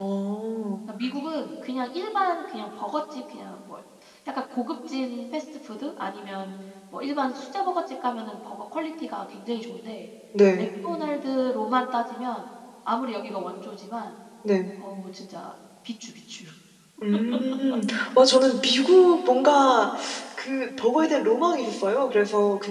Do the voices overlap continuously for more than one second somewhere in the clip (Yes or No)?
No